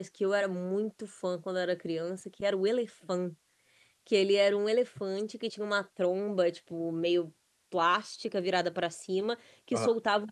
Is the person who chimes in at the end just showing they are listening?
Yes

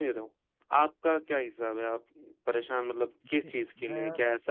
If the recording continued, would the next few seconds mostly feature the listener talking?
No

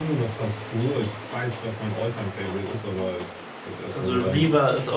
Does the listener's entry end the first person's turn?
Yes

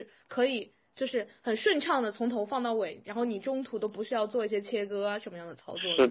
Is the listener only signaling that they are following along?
No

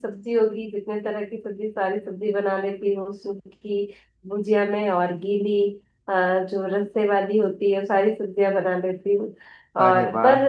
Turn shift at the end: No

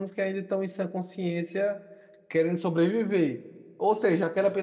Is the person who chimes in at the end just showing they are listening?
Yes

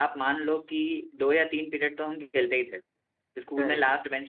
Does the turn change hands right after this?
No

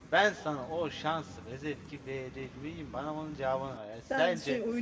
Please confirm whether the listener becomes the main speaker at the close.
Yes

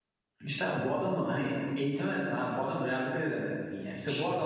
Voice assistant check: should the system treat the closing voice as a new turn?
Yes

